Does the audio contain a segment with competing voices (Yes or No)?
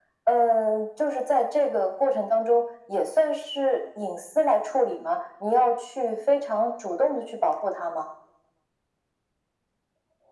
No